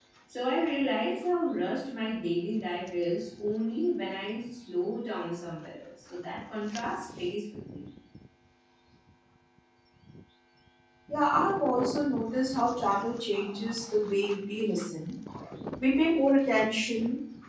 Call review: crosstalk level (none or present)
none